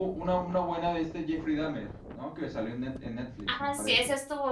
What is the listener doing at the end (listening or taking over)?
taking over